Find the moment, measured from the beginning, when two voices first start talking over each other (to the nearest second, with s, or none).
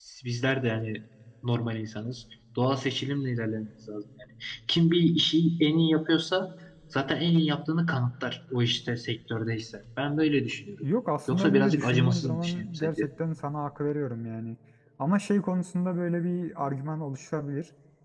11 s